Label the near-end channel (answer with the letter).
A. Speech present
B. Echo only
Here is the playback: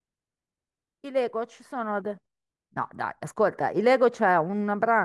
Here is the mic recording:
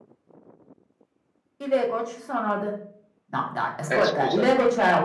A